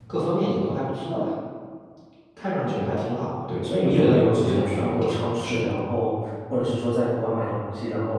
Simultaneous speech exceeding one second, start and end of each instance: 3.6-5.7

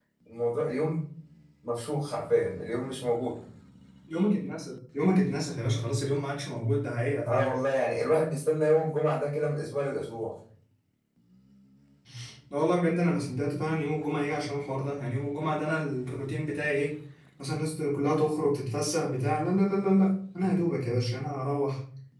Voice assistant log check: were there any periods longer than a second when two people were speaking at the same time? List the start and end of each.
none

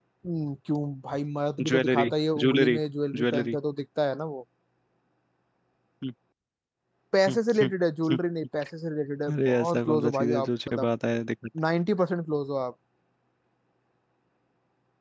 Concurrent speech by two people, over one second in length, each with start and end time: 9.3-10.9

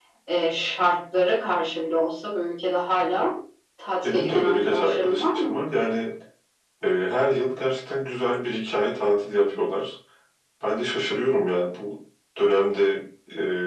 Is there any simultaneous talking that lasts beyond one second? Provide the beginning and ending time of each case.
4.0-5.6

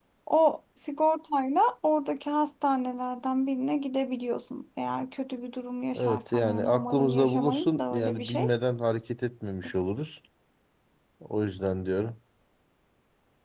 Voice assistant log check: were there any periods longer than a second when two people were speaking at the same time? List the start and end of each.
6.0-8.5

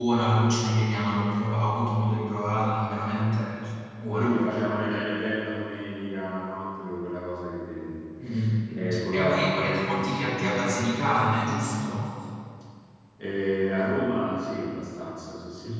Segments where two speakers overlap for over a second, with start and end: 9.1-10.8

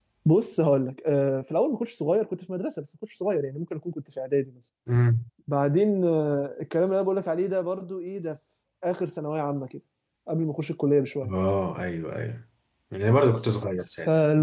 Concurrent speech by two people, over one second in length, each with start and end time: none

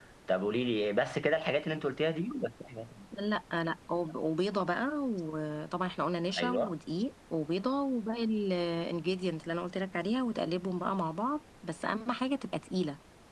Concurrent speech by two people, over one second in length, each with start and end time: none

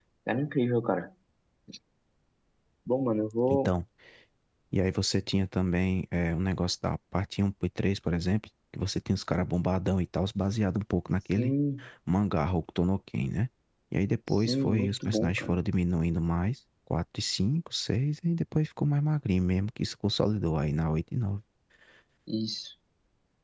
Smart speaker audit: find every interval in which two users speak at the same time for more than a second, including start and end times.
14.3-15.6

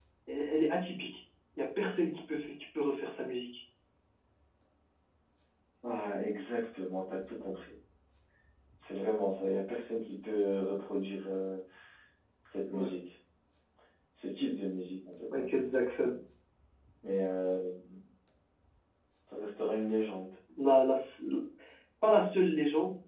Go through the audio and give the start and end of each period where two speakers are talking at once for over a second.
none

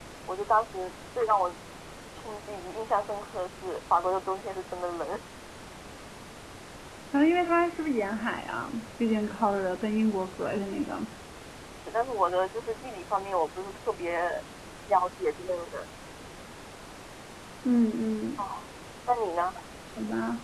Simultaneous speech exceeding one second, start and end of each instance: none

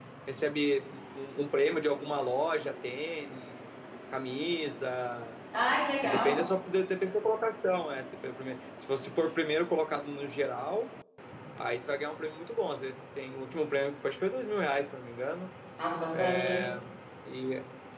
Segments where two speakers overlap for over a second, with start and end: none

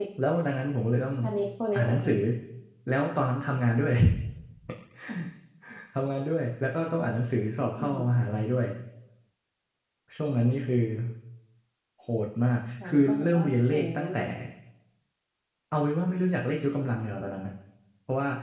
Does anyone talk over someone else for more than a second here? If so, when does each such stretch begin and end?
12.8-14.2

